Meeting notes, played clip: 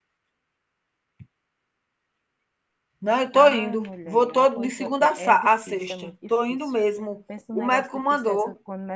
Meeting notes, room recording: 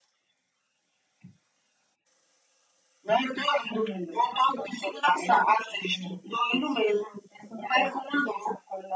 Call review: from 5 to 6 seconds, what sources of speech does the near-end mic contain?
echo only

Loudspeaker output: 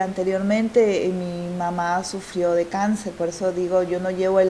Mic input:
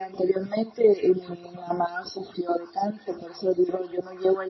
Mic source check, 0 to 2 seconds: echo only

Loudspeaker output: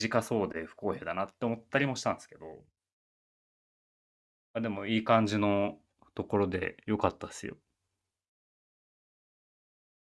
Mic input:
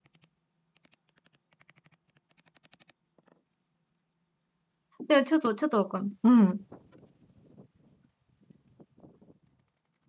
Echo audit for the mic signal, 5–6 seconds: user only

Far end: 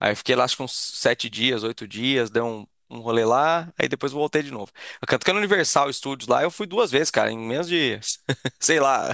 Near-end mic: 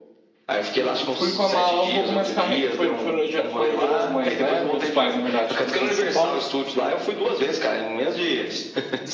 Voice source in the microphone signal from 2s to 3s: both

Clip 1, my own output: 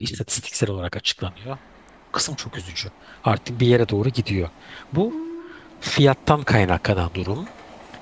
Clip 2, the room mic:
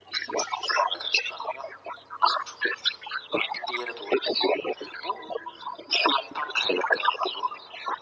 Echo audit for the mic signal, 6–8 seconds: echo only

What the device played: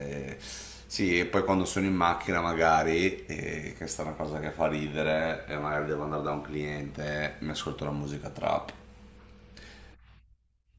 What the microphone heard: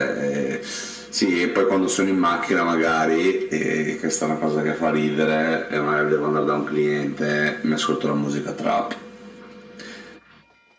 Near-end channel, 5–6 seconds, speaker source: echo only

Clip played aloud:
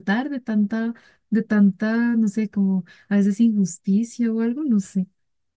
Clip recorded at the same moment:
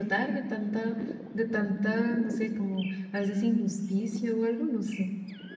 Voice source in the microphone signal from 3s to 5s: echo only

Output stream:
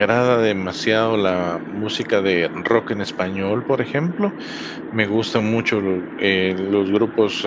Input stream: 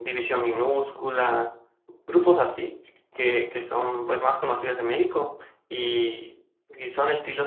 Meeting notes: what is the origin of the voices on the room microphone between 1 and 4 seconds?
user only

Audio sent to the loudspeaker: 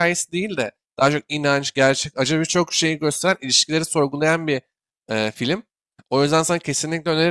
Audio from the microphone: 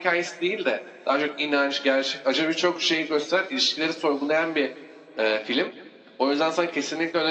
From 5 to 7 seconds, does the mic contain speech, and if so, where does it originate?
echo only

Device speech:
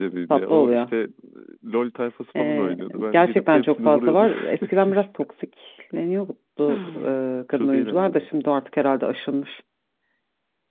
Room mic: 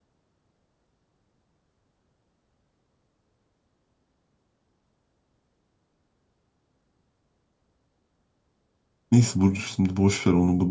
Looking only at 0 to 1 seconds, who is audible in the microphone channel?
neither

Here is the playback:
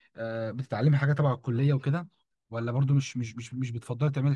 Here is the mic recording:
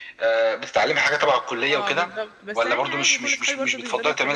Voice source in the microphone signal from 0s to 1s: echo only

